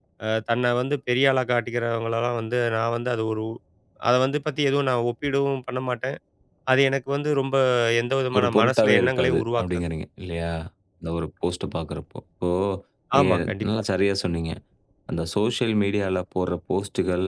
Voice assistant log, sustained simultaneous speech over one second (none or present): present